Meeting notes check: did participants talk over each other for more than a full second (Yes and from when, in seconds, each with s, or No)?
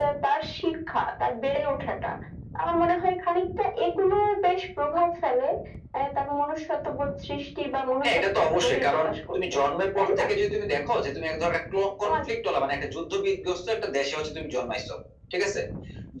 Yes, from 8.0 s